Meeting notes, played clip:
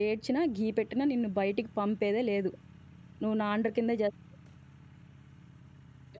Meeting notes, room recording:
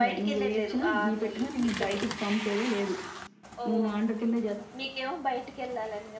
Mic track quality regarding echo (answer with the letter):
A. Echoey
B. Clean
A